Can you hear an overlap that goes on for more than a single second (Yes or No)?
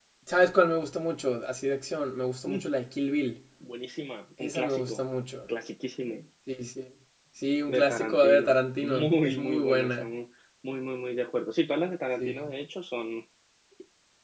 Yes